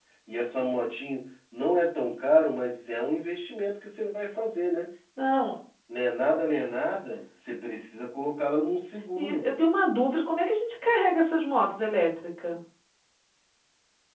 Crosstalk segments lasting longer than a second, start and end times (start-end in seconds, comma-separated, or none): none